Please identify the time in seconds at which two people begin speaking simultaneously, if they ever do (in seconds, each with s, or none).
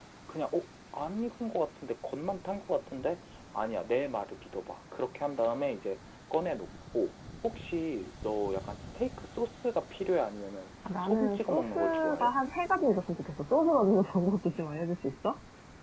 10.8 s